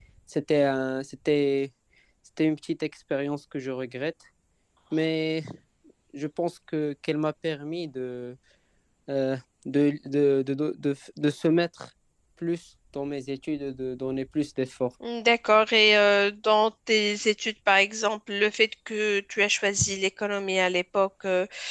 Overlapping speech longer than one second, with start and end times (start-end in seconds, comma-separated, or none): none